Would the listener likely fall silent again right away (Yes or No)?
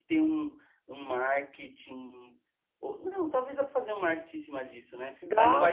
Yes